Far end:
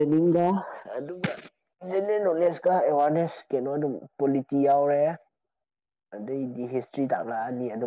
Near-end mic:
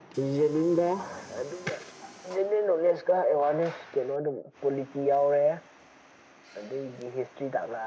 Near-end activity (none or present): none